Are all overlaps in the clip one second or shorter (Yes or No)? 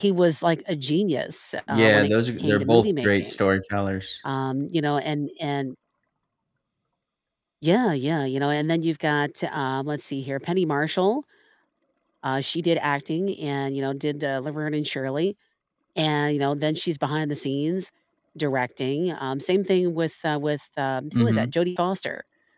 No